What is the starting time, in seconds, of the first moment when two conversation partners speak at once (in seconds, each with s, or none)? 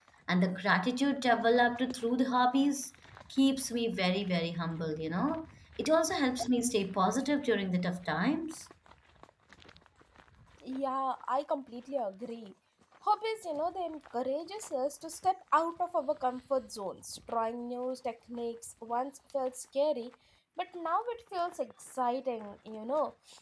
none